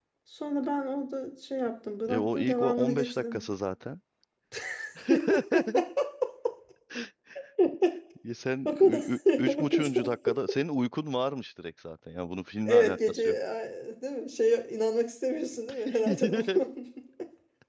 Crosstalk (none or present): present